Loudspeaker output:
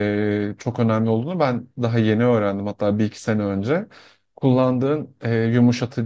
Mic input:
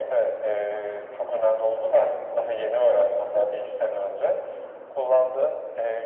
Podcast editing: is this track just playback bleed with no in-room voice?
Yes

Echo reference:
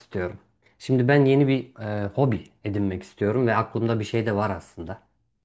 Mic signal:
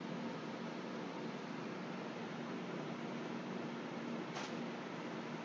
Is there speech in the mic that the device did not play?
No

